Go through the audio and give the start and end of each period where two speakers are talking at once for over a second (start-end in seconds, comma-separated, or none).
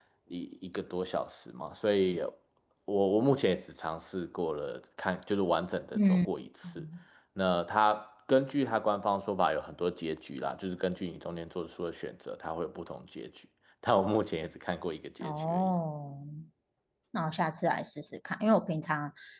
none